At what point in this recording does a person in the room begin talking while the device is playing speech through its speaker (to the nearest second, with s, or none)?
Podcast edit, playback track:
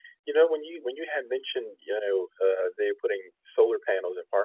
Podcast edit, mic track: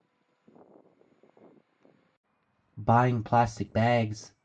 3 s